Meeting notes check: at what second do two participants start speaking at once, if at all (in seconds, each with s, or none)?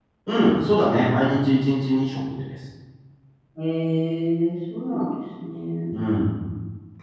none